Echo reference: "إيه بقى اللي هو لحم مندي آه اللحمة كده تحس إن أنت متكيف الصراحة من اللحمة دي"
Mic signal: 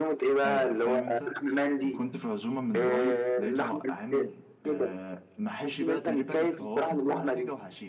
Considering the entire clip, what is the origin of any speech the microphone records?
both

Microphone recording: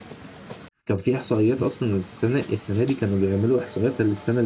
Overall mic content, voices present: user only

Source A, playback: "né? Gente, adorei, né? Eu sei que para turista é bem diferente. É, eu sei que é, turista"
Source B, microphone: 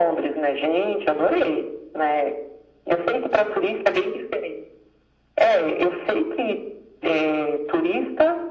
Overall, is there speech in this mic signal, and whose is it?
echo only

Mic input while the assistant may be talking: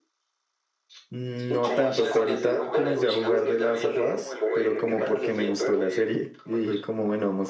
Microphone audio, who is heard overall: both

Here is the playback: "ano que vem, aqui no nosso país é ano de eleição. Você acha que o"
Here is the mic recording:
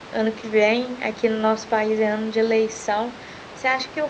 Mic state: echo only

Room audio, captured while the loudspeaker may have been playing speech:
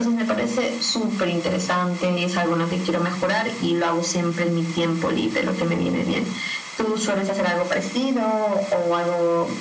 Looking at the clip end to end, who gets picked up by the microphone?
echo only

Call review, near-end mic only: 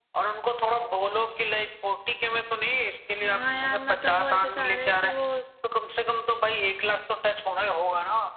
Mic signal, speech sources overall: both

